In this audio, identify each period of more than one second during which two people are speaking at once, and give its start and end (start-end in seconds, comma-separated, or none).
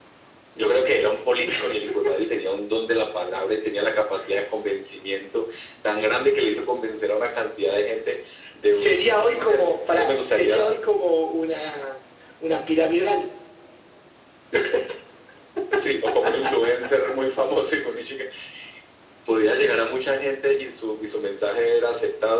8.7-10.7